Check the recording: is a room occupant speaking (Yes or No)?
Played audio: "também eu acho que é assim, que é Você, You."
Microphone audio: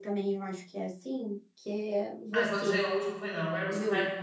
Yes